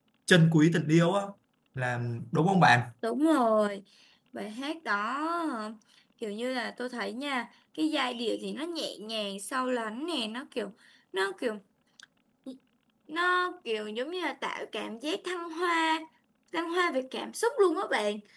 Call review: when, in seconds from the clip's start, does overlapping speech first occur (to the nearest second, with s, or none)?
none